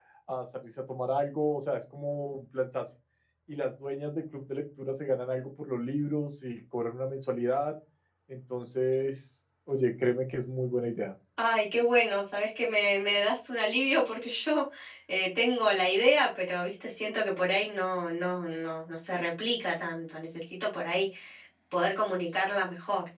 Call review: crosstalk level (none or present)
none